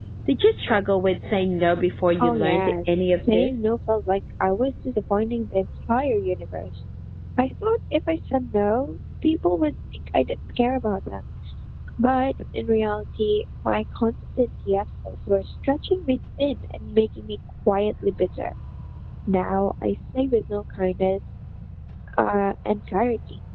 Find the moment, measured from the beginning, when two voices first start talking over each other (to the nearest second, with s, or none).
2 s